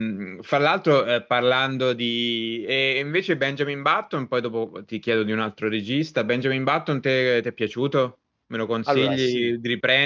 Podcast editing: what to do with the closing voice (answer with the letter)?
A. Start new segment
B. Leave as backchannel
B